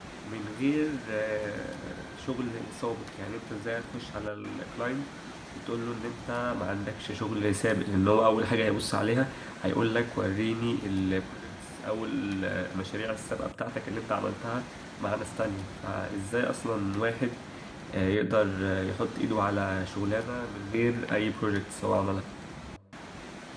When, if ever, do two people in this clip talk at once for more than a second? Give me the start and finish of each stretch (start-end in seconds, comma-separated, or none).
none